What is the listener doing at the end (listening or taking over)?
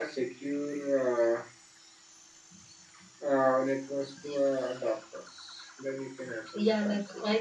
taking over